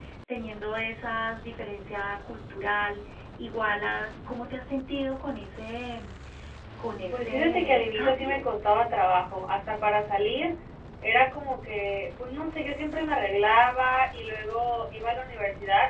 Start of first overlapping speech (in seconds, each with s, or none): 7.1 s